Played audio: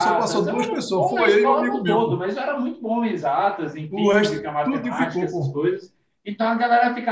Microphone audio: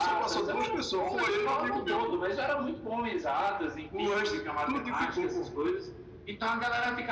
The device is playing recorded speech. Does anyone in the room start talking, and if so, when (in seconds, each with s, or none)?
none